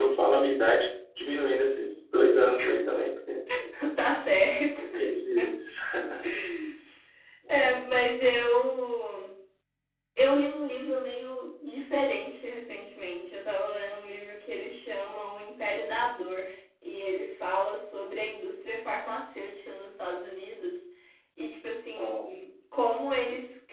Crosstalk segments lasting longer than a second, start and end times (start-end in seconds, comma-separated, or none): none